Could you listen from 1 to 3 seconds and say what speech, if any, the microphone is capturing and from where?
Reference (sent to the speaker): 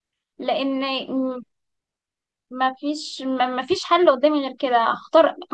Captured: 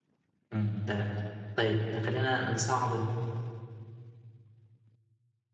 user only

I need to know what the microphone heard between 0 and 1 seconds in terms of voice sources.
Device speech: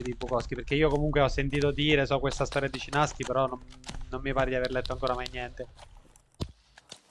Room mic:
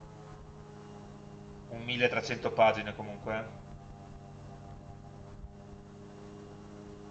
neither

